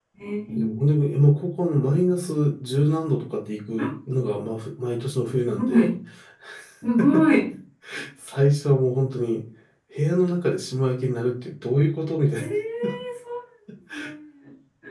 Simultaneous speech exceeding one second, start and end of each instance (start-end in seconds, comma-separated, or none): none